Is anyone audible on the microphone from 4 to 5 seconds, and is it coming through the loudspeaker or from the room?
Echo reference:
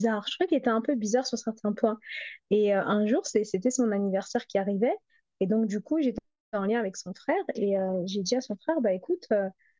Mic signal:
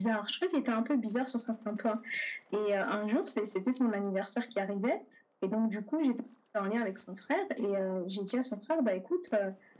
echo only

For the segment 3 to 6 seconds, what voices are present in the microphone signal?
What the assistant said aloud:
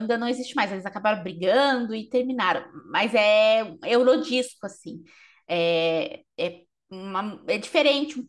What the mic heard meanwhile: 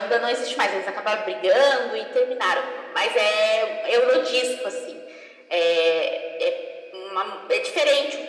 echo only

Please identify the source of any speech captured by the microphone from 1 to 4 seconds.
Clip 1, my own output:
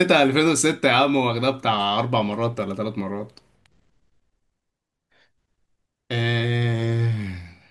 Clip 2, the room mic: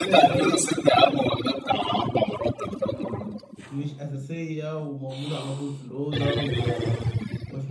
both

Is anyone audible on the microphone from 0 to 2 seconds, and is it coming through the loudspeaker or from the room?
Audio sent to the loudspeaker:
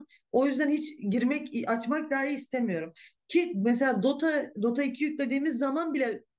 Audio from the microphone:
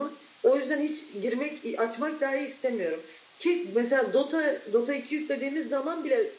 echo only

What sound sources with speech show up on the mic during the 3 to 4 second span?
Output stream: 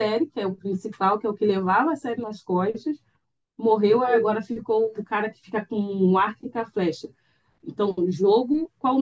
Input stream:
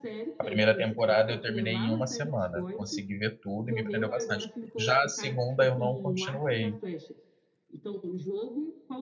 both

